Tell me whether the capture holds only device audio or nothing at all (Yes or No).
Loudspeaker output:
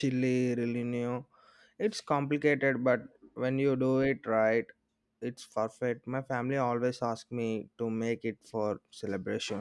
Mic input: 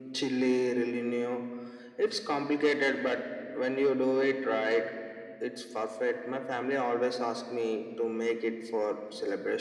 Yes